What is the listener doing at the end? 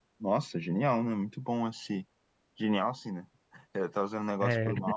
listening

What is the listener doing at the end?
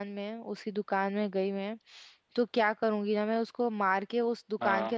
listening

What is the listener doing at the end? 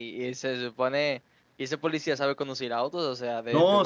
taking over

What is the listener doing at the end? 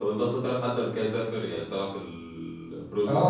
taking over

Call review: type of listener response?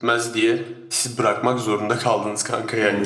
taking over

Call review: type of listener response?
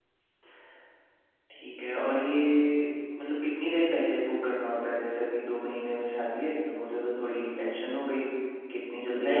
taking over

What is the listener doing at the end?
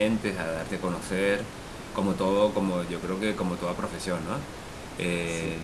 listening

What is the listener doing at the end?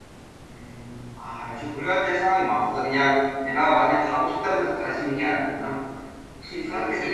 taking over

